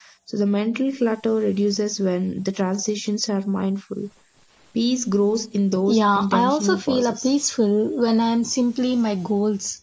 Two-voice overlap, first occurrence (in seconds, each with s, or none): 5.9 s